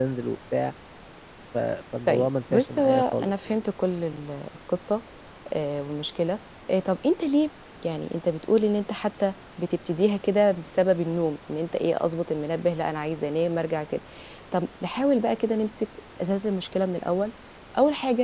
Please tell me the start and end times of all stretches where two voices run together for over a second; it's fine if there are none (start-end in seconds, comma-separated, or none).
2.1-3.6